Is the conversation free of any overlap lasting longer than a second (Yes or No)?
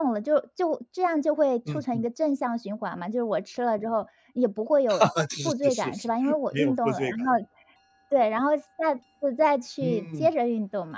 No